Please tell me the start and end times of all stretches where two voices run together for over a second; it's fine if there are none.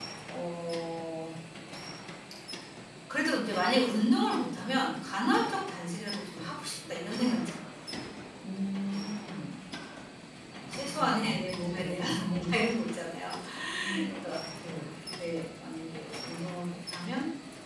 10.8-12.1

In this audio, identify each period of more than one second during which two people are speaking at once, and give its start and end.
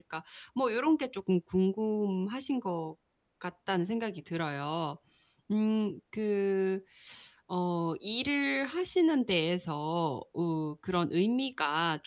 none

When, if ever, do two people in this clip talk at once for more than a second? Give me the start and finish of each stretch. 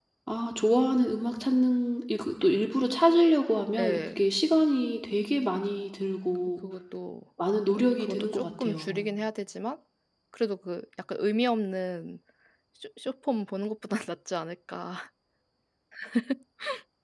7.7-9.1

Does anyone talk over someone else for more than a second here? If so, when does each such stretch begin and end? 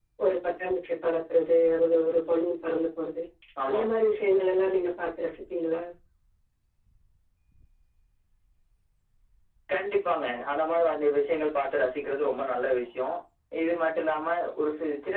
none

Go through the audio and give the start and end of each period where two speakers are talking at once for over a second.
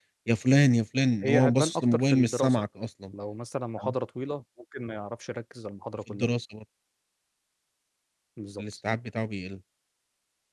1.2-2.6

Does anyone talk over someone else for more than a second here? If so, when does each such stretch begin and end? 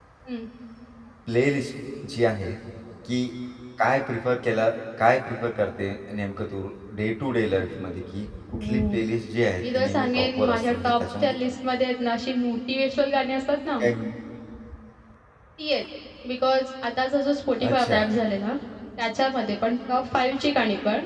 9.6-11.4

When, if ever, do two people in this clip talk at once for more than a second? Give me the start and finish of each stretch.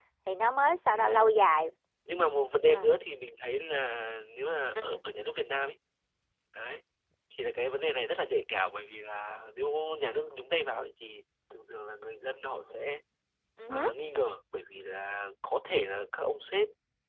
none

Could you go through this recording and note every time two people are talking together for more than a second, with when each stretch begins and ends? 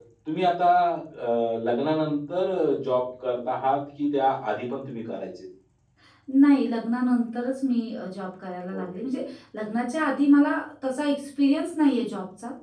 none

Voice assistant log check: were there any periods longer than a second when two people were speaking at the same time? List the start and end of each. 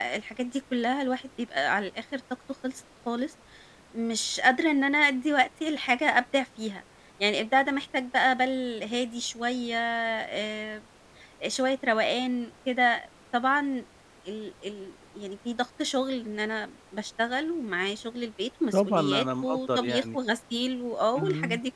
18.7-20.2

